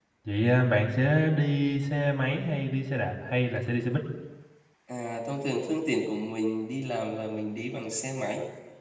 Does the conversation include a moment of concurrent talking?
No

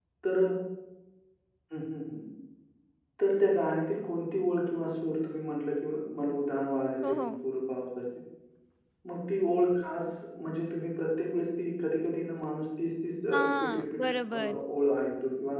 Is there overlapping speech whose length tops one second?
Yes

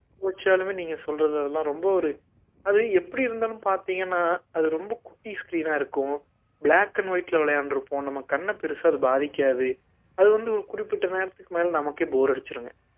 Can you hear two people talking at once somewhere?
No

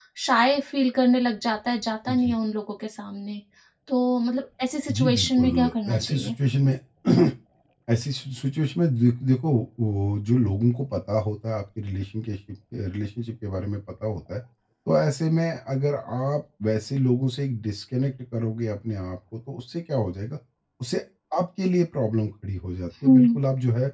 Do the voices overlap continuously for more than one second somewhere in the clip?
Yes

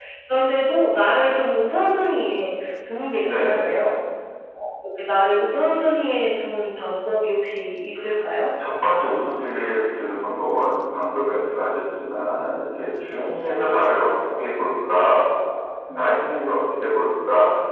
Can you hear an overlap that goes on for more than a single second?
No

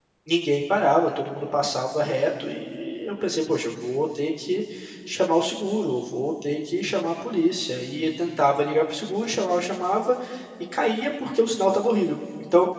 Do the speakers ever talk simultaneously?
No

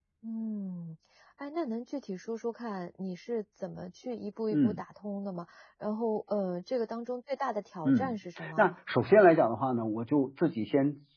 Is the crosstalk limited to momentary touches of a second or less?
Yes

